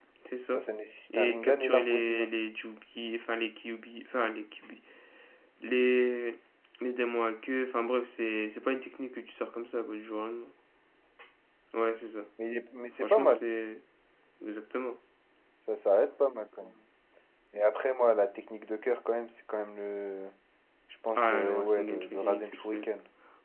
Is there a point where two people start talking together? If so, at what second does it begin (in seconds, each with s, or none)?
1.1 s